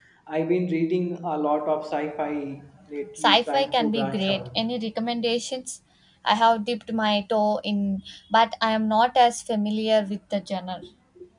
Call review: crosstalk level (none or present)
present